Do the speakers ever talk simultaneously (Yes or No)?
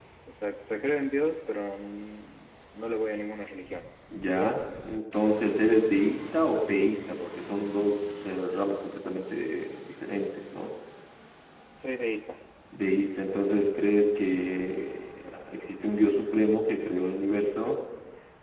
No